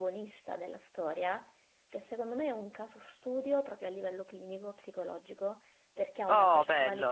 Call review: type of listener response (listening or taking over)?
listening